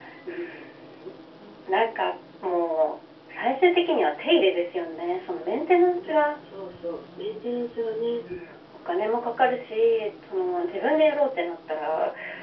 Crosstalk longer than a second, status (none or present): none